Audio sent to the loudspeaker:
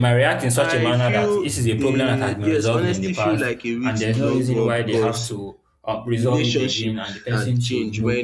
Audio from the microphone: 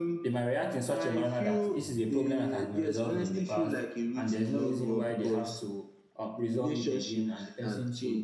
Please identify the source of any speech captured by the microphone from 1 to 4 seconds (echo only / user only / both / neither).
echo only